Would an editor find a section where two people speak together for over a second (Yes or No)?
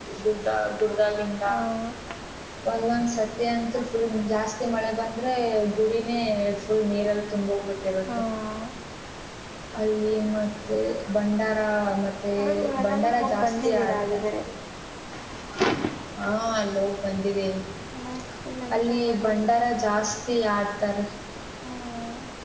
Yes